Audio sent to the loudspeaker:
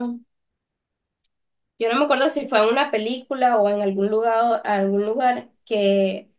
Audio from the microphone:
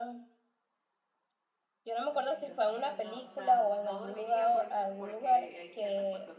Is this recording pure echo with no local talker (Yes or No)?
No